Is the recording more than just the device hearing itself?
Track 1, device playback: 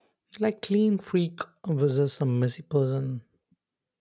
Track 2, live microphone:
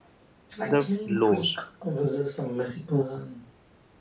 Yes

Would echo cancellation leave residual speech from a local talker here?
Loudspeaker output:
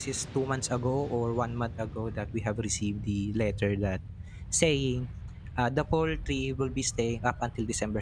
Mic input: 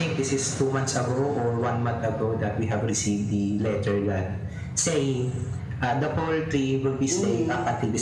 Yes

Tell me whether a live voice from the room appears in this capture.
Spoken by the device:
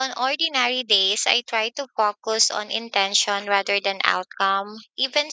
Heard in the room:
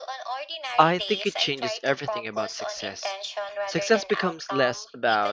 Yes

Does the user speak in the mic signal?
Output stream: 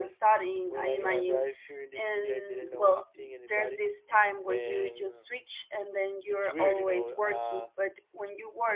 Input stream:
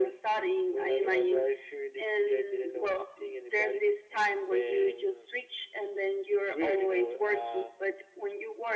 No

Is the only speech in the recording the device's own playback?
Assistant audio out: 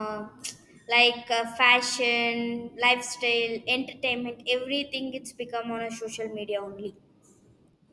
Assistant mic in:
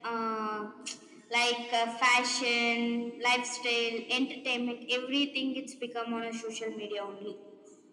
Yes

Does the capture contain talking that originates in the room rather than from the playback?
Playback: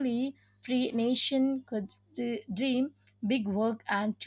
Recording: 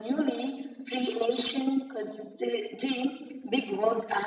No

